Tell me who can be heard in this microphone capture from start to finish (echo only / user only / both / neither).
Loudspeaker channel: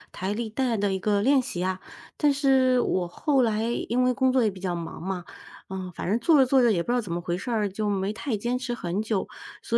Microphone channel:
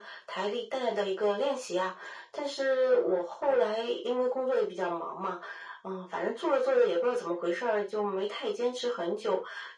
echo only